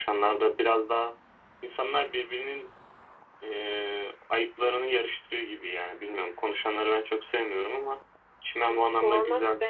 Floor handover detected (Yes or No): Yes